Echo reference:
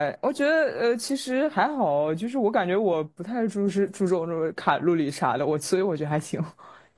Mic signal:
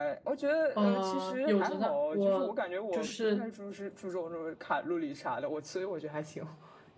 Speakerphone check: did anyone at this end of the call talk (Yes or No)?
Yes